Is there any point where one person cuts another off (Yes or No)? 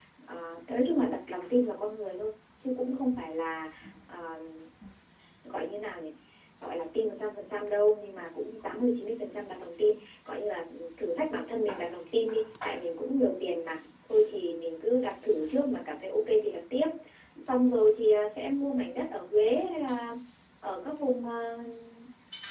No